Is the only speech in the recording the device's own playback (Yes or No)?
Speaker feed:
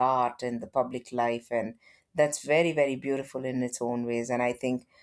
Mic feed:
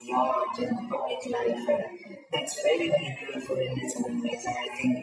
Yes